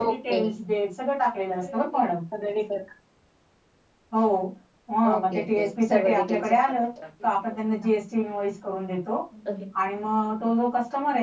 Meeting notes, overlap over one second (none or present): present